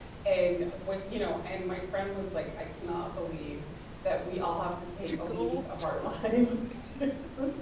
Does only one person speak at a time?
No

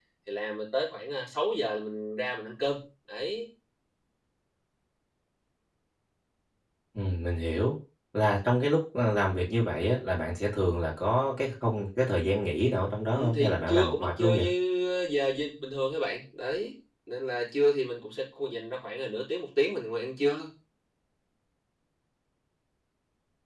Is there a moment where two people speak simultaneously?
Yes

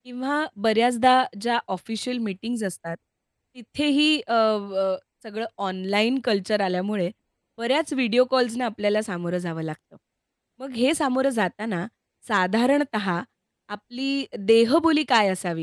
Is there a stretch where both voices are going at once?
No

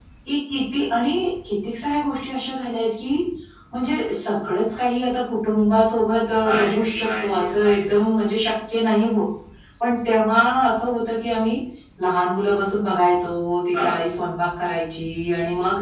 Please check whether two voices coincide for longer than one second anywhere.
Yes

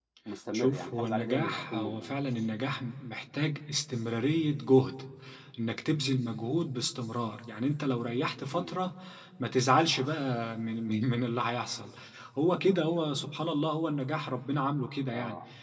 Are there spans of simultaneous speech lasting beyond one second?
Yes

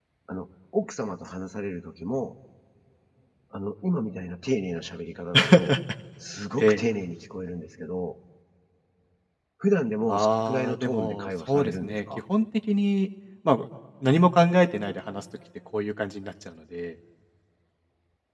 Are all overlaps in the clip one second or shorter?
No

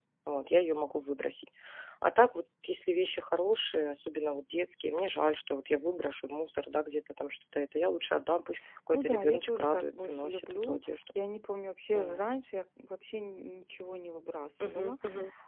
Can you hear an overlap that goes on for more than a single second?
Yes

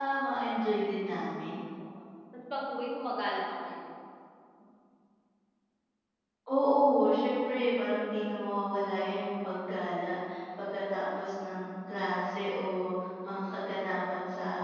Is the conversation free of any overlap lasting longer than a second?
Yes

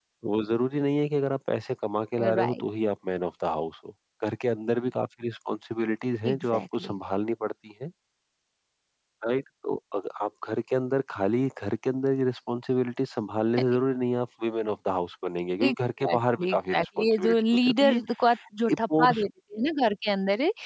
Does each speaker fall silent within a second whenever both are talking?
No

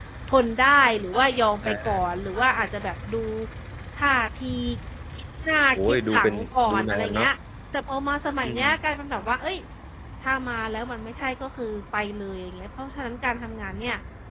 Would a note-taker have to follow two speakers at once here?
Yes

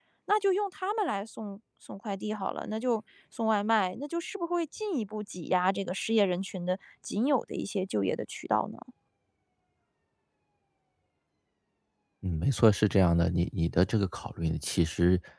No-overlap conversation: Yes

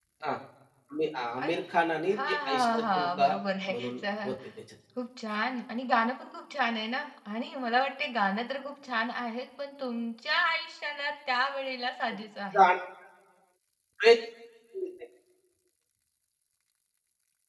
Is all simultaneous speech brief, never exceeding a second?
No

